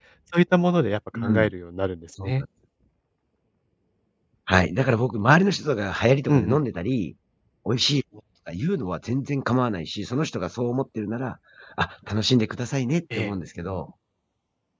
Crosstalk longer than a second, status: none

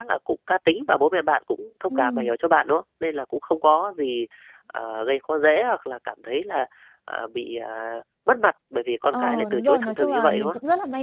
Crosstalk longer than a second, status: present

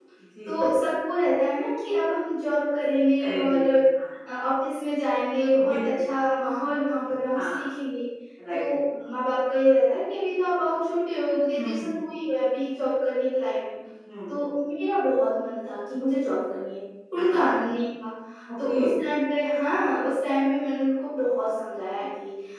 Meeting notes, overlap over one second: none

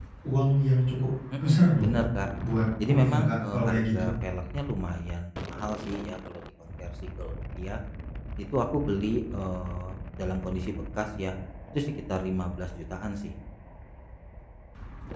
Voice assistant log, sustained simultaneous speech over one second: present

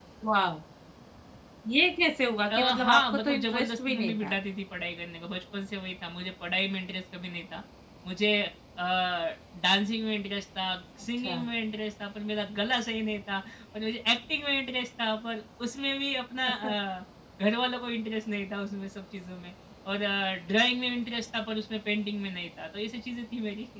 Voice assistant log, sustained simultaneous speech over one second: present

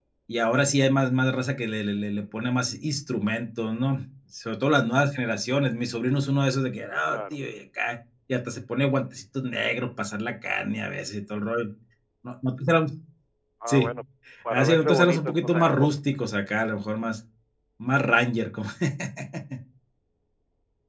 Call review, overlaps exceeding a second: present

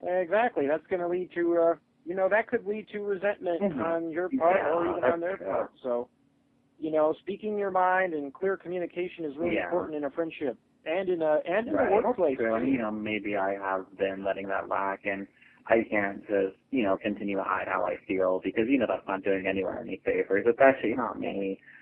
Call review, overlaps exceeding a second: present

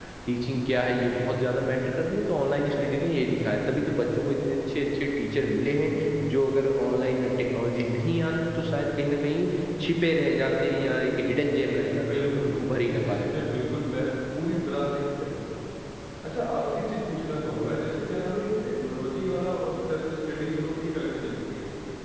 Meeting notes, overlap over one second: present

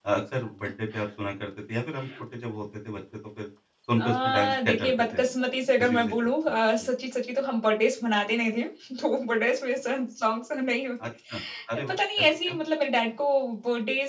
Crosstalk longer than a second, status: present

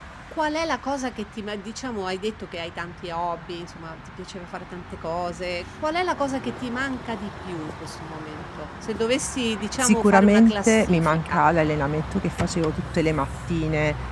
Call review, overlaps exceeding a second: present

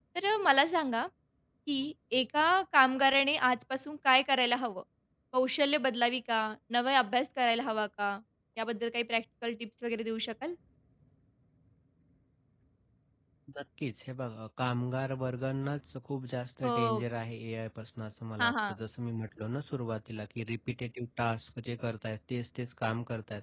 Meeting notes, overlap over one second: none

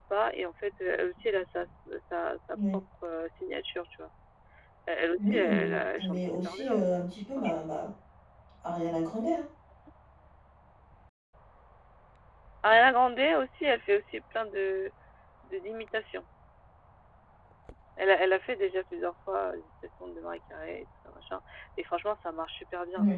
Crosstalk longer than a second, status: present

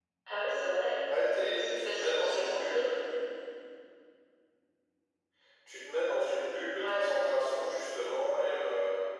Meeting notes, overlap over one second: present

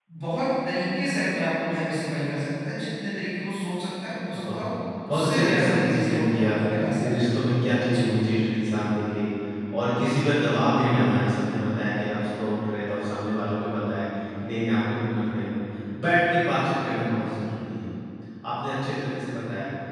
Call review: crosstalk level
present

